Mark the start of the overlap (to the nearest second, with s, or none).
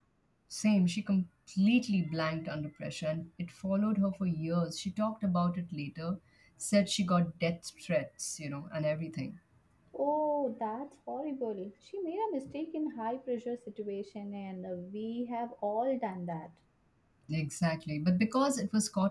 none